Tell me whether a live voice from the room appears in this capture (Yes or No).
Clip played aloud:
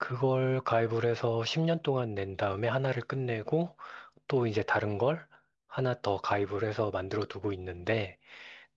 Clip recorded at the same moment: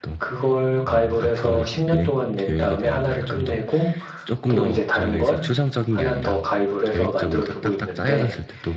Yes